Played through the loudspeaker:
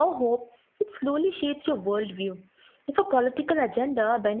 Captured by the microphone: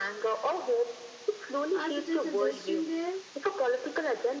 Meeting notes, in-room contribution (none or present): present